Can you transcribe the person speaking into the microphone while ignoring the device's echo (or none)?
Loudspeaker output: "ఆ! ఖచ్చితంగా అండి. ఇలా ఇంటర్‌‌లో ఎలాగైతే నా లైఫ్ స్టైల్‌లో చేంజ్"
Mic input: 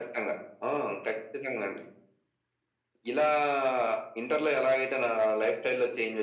none